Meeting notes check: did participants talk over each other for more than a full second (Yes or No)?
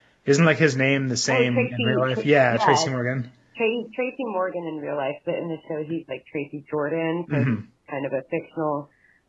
Yes